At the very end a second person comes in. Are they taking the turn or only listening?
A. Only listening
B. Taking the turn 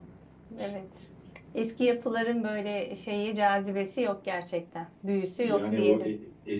B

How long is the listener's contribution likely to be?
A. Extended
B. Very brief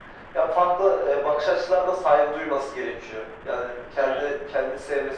B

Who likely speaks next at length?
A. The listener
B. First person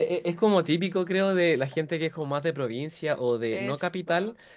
B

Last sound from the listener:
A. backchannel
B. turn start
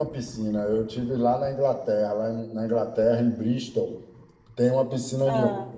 A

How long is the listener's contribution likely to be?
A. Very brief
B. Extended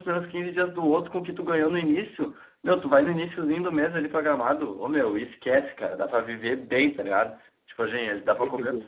A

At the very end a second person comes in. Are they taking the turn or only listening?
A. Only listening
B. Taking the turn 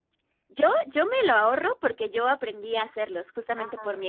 A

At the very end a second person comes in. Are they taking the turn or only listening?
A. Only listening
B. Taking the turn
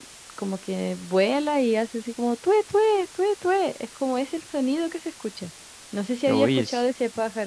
A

